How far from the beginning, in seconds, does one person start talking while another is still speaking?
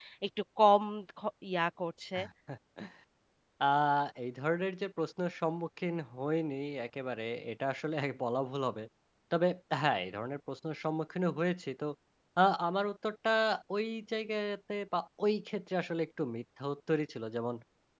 none

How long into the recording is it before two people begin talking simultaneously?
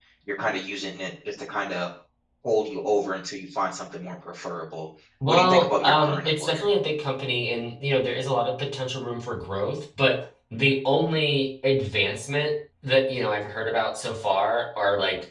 5.2 s

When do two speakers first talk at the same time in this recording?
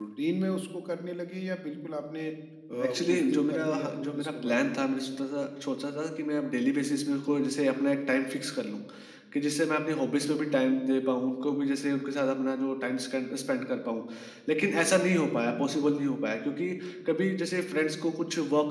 2.7 s

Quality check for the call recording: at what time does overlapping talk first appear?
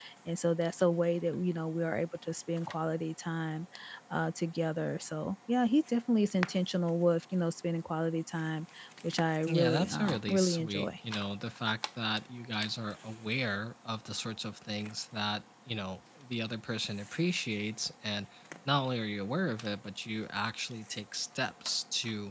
9.5 s

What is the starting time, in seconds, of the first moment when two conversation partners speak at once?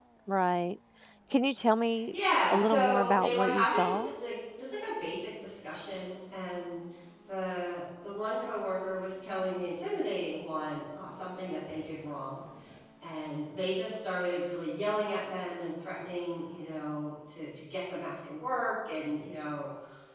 2.5 s

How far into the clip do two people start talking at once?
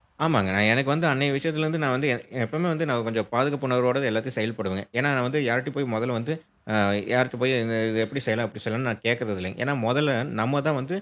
none

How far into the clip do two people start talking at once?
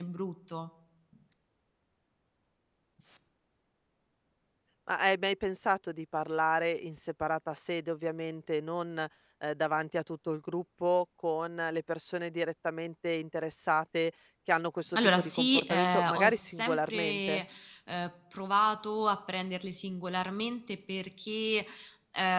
14.9 s

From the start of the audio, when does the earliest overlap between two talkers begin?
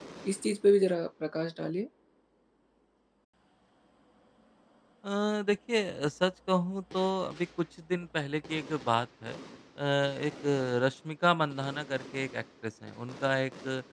none

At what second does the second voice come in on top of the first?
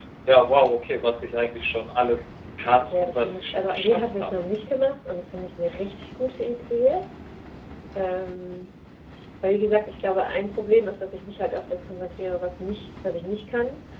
2.9 s

